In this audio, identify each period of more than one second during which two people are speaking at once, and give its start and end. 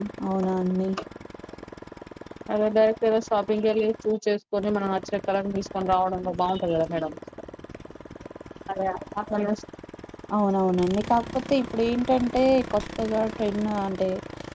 none

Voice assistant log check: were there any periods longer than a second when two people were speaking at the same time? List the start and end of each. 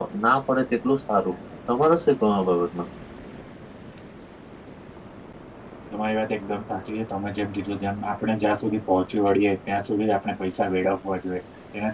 none

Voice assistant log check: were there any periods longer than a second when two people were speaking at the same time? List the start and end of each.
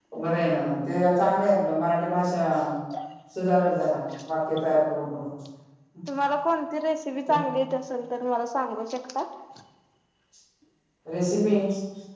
none

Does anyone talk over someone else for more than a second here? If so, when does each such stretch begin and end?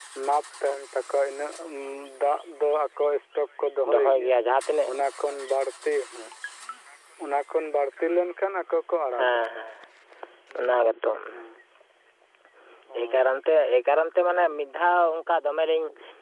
none

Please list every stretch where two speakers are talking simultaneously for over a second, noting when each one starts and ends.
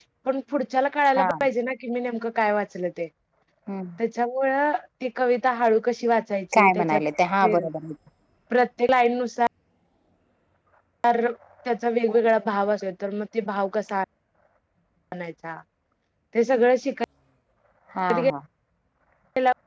none

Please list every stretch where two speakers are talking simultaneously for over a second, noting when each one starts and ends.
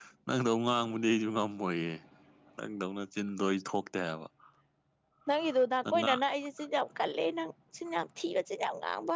none

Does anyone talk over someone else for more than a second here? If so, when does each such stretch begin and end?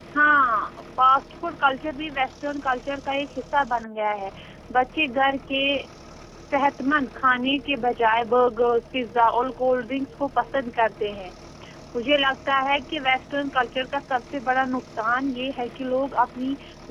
none

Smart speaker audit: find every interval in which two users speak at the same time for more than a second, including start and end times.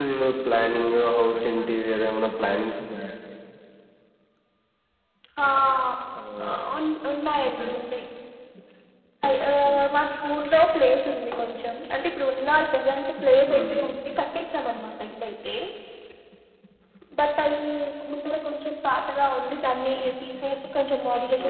none

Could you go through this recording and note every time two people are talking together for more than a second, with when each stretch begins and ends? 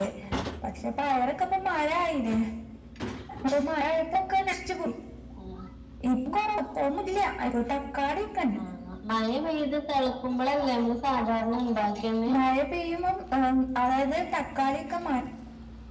none

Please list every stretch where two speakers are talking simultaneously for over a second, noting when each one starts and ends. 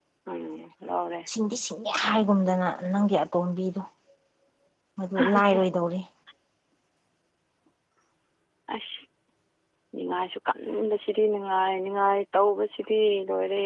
none

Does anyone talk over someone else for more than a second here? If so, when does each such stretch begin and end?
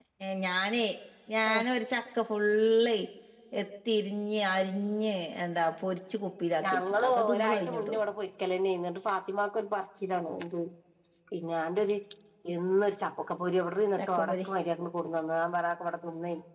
6.7-8.0

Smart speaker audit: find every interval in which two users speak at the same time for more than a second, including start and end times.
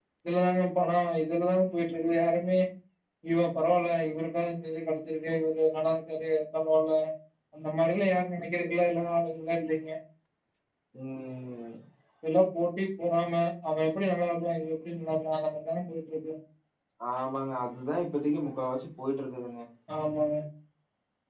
none

